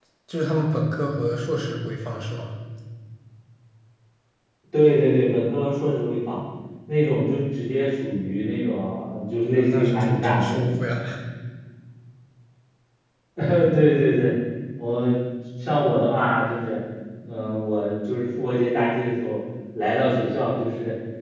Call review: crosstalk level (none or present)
present